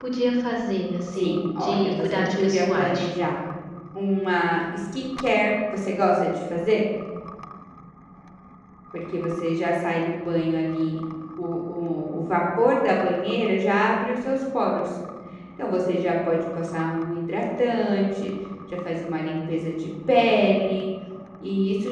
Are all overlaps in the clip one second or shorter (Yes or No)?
No